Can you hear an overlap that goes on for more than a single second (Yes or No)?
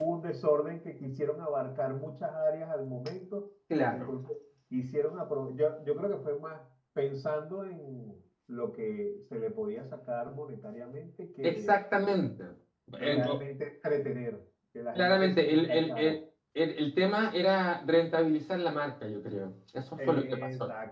Yes